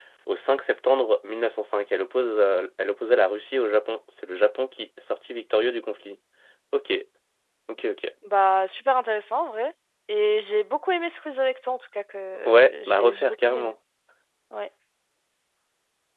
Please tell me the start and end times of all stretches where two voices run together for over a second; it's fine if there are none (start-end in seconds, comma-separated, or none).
12.5-13.7